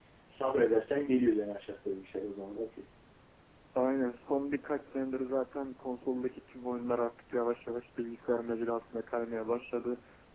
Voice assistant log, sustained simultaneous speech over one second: none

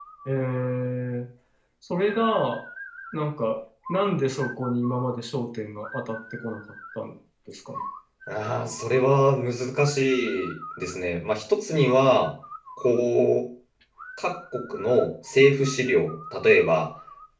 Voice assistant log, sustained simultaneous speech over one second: none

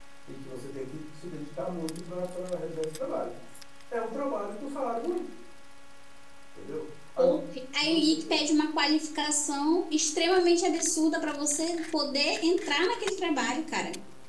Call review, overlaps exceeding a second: none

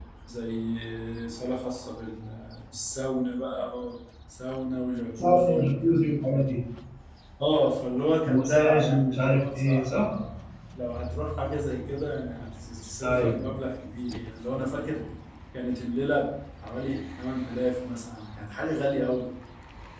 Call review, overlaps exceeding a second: present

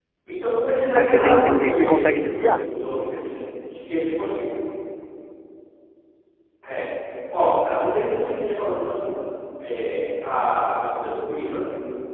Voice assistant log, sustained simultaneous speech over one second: present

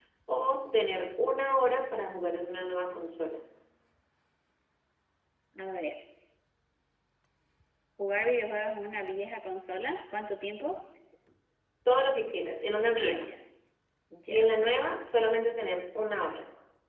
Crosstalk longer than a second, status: none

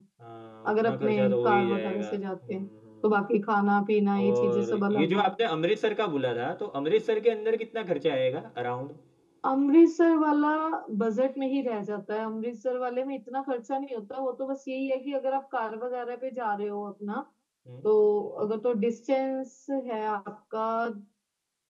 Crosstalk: present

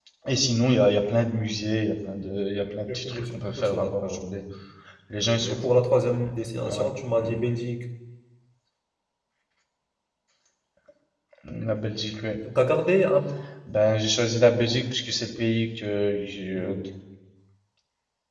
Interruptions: present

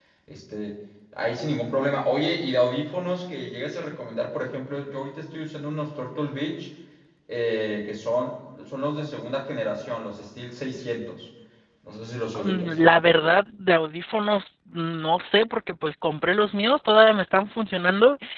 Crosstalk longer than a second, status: none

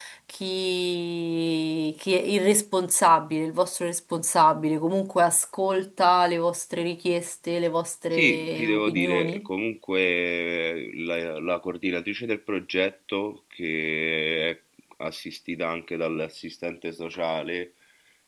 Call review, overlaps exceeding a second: present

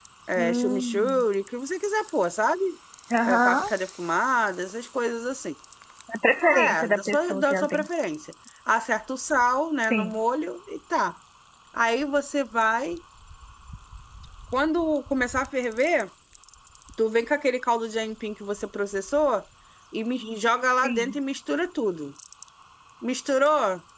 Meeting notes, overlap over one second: present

